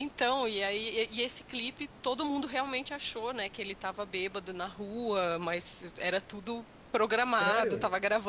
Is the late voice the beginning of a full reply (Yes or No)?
No